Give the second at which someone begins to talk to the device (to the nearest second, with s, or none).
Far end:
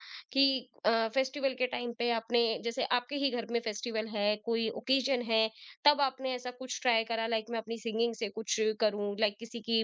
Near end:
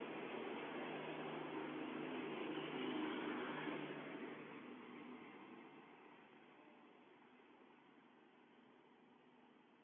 none